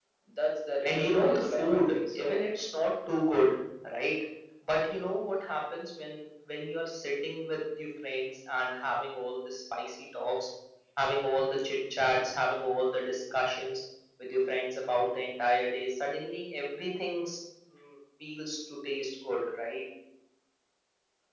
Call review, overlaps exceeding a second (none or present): present